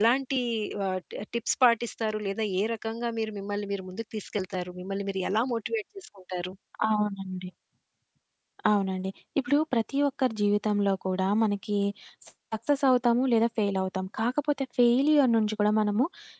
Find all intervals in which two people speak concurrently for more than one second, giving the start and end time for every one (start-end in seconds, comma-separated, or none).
none